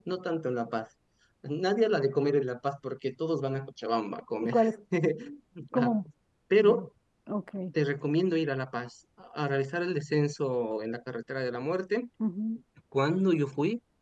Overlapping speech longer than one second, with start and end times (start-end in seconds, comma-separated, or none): none